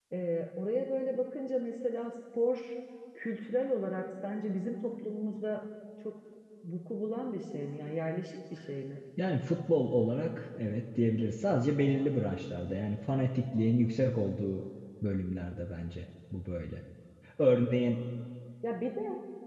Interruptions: none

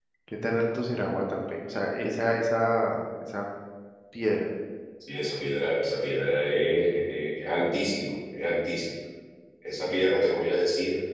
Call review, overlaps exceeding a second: none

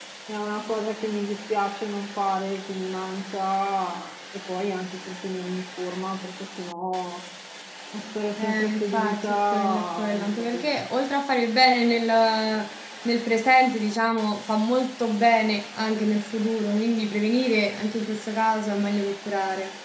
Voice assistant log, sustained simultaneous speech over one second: present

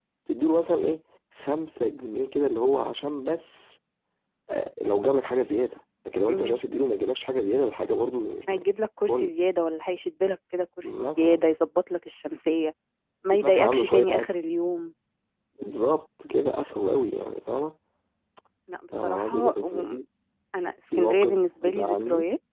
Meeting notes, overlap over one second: present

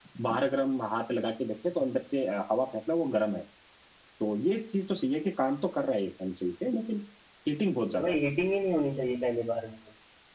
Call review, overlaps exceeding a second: none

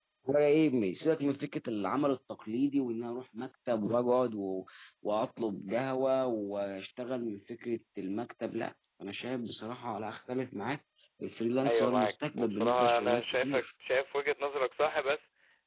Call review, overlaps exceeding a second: present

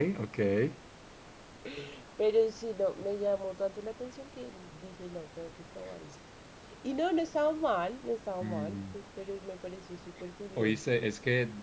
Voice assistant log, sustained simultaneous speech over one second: none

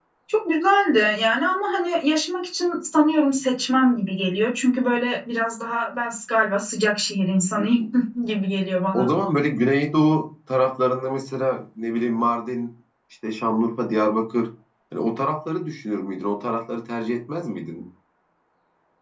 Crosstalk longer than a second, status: none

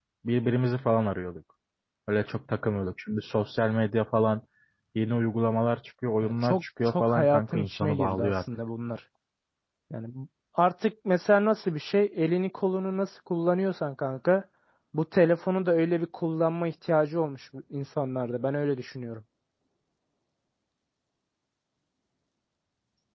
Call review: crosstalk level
present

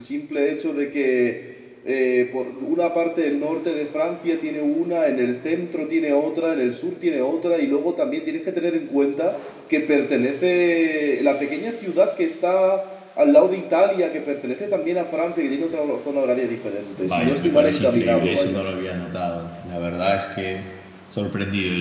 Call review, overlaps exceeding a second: present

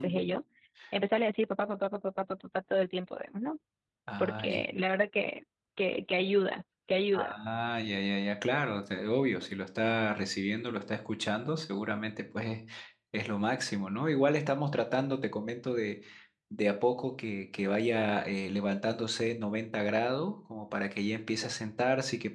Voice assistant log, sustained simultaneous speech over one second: none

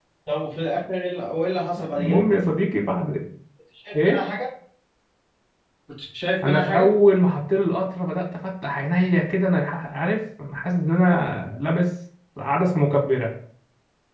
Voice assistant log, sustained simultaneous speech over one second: none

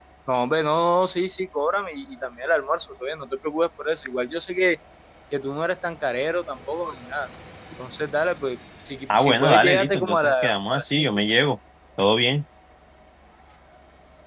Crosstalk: present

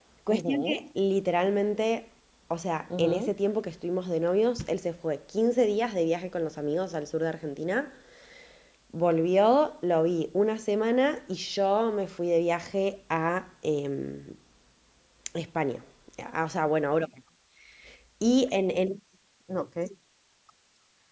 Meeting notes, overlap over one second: none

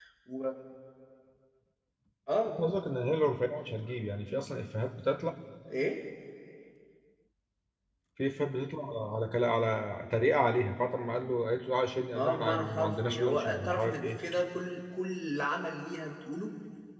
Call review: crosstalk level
present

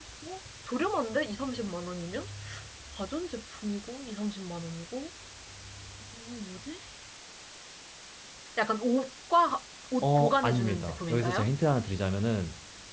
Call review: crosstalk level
present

